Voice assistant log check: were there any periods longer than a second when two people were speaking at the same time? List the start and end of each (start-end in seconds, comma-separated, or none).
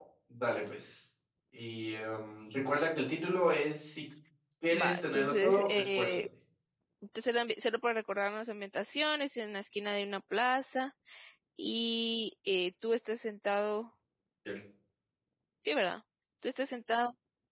4.7-6.2